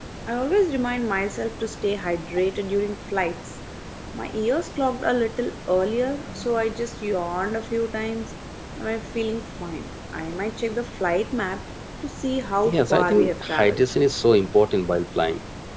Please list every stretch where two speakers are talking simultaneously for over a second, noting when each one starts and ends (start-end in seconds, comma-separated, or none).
12.7-13.9